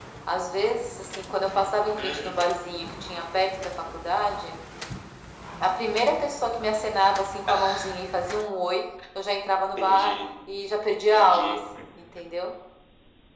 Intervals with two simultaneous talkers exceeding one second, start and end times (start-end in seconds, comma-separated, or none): none